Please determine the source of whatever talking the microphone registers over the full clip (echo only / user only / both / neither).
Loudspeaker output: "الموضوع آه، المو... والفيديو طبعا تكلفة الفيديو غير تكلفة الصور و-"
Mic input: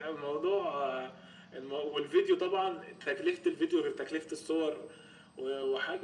echo only